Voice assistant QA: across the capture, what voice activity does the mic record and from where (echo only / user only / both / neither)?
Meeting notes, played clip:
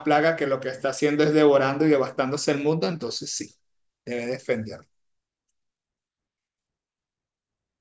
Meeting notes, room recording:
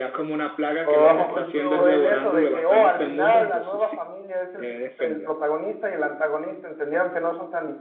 both